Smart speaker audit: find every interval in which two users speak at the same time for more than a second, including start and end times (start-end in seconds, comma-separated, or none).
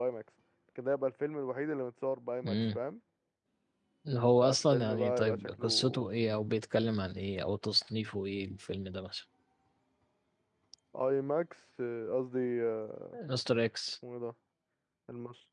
4.4-6.1